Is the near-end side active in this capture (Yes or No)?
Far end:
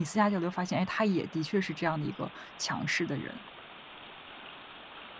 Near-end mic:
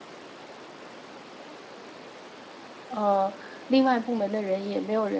Yes